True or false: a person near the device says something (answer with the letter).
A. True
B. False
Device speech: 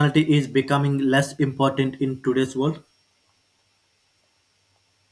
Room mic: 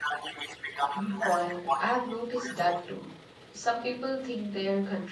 A